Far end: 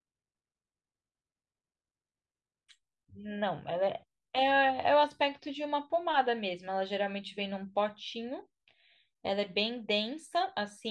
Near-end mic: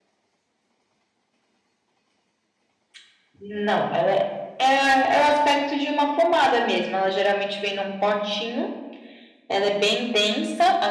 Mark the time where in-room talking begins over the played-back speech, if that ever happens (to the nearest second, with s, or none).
none